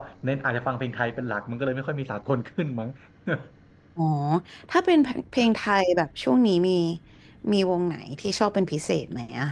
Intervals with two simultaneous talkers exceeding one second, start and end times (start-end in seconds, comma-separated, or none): none